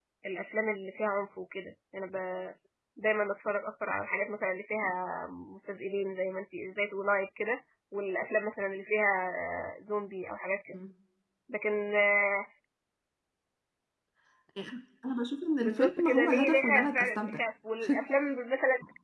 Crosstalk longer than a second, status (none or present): present